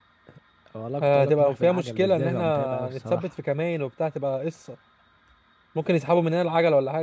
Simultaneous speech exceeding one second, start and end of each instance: 1.0-3.2

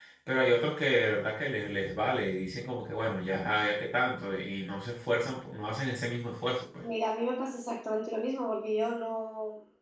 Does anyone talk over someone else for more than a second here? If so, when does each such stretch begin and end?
none

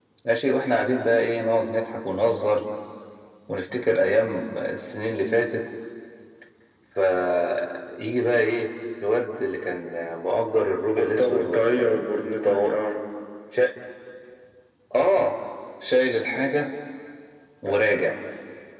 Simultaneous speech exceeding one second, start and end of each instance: 11.0-12.8

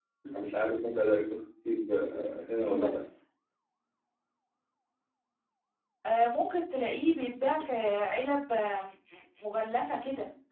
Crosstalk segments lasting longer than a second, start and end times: none

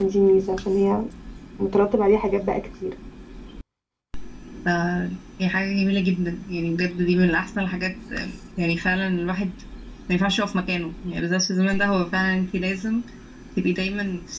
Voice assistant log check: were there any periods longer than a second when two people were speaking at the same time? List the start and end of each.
none

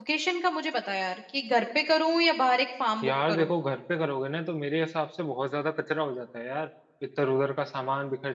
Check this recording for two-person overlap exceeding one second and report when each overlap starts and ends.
none

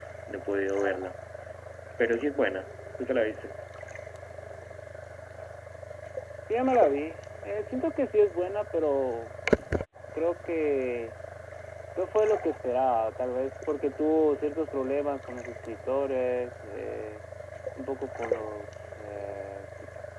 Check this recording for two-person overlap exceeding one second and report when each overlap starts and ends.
none

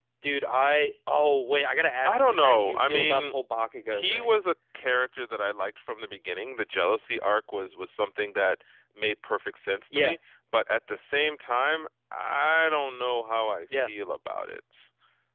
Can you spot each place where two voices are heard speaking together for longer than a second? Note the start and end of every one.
2.0-3.3

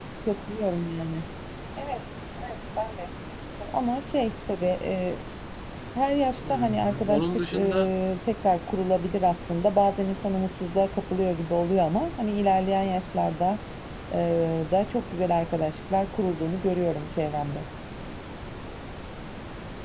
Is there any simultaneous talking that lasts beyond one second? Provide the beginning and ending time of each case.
6.3-7.9

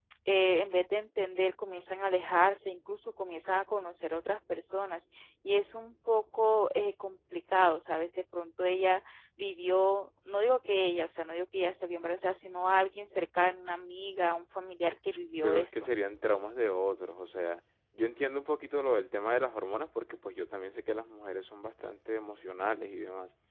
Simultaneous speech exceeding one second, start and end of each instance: none

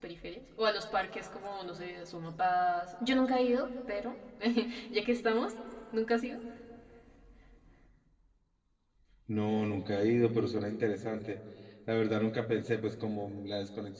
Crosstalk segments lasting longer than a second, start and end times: none

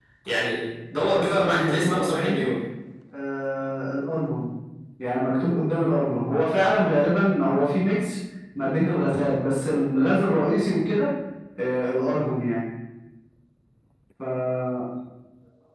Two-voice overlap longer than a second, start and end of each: 1.1-2.5

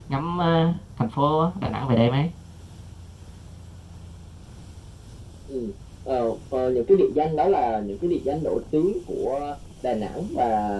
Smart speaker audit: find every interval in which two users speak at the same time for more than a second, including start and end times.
none

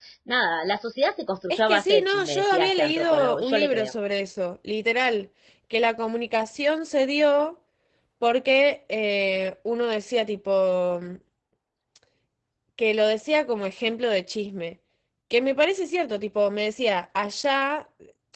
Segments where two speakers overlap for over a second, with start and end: 1.5-3.9

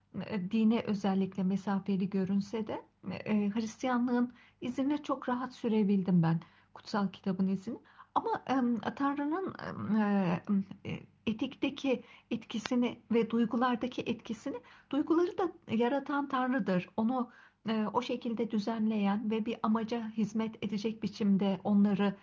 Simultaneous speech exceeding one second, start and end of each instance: none

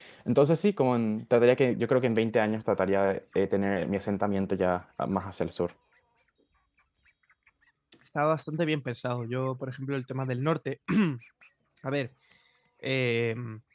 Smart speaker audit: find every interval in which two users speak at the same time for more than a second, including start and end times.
none

